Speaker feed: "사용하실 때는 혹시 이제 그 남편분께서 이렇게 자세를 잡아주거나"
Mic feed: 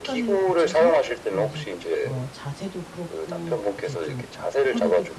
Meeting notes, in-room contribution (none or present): present